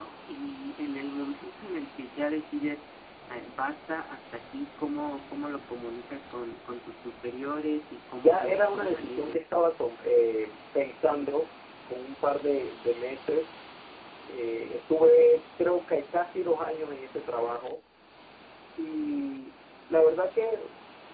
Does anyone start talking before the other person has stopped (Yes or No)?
Yes